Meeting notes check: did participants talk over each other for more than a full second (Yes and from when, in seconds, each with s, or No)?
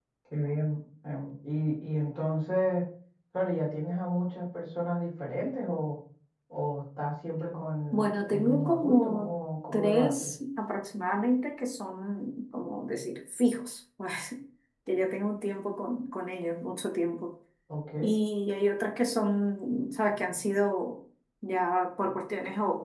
Yes, from 7.9 s